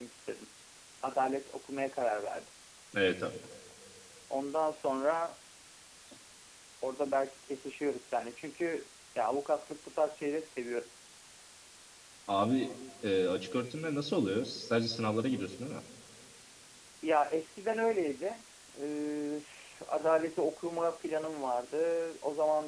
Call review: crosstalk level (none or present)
none